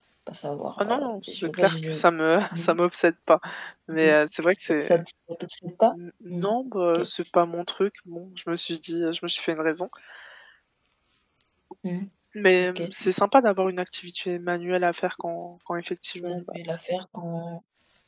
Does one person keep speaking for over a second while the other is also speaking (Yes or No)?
Yes